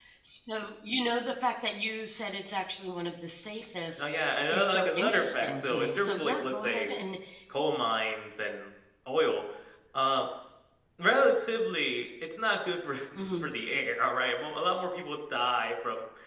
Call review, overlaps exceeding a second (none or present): present